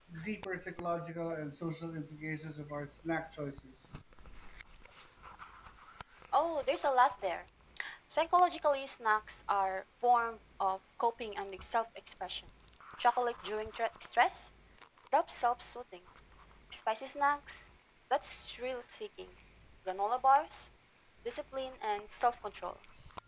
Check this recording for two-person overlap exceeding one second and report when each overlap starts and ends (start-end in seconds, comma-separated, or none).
none